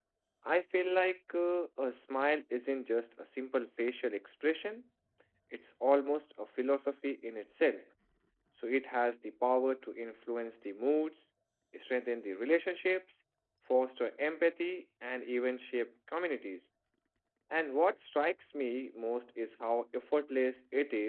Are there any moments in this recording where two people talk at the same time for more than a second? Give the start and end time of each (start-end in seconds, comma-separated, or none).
none